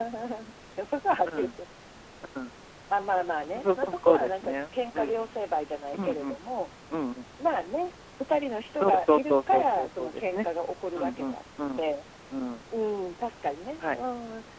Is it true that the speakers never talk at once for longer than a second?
No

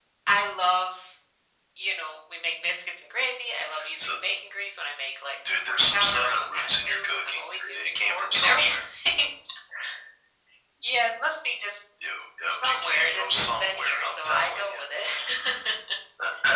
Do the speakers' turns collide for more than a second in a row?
Yes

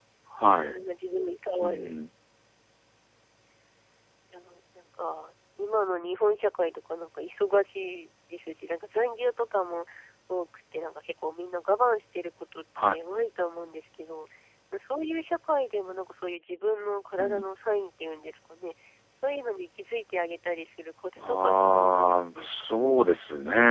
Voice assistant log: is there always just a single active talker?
No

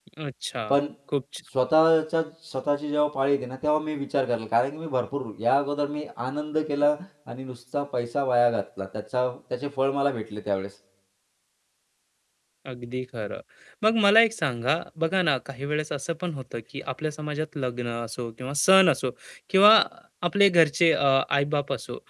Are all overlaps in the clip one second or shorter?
Yes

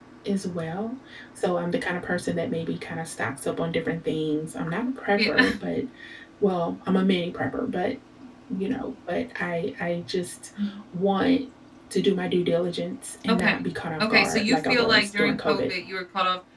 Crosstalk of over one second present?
Yes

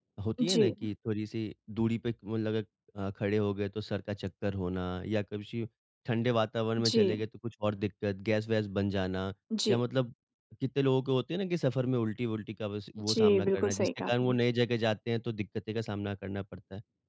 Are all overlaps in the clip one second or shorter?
No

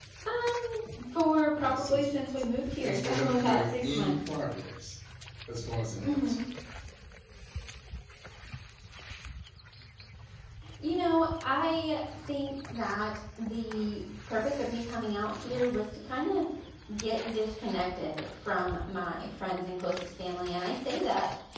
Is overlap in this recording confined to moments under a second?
No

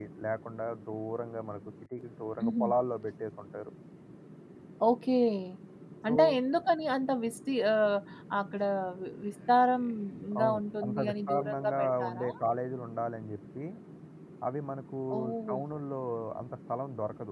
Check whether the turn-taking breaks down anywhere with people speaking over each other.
Yes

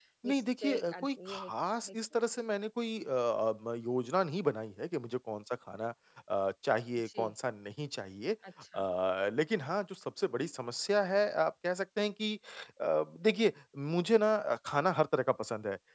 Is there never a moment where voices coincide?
No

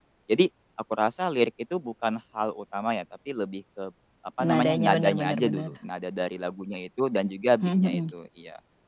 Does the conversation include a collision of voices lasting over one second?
Yes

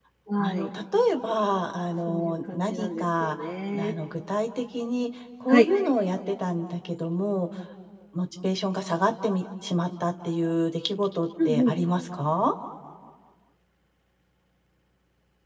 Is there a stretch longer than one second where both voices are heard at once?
Yes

